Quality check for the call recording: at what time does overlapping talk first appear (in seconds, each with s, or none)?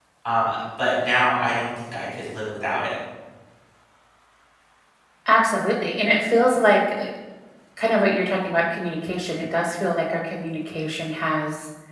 none